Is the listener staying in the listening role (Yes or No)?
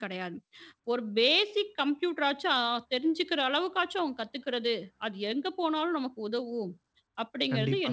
No